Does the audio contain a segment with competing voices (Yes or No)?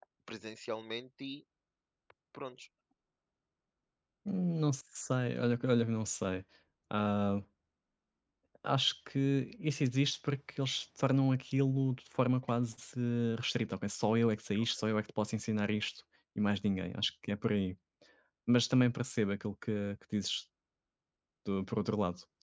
No